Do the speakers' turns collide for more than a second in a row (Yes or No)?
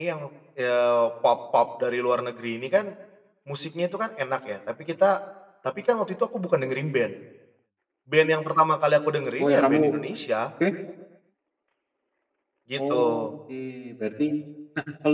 No